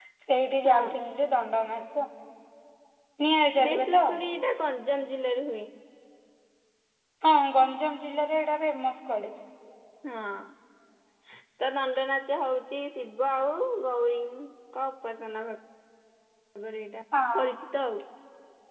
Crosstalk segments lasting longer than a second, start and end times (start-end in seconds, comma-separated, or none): none